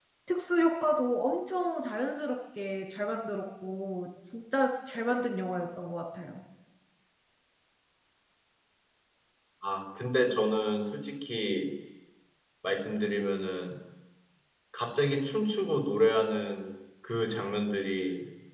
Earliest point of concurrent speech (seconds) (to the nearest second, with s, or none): none